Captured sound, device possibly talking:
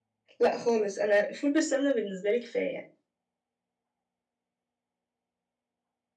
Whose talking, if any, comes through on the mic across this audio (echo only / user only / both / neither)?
user only